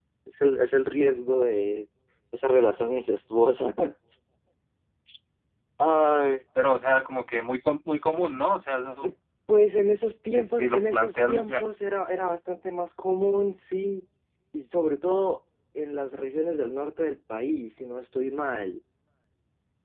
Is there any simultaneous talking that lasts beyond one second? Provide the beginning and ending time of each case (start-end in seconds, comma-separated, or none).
10.3-11.6